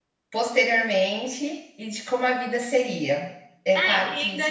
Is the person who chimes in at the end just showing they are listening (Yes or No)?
No